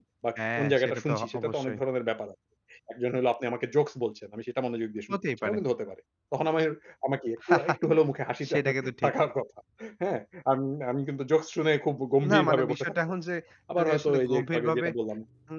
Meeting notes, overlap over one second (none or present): present